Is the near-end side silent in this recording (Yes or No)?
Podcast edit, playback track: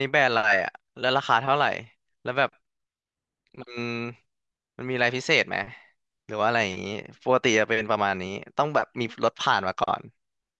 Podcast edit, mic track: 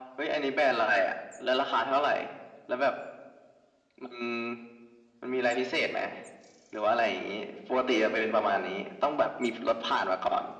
Yes